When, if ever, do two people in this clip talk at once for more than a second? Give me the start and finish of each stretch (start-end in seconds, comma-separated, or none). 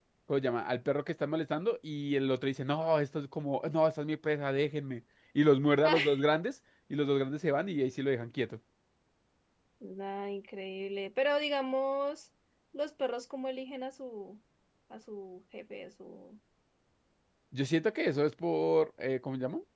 none